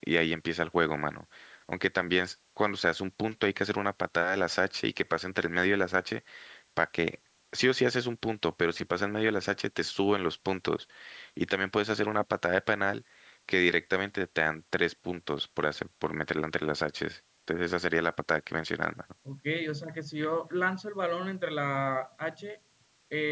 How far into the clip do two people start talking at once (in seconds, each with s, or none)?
none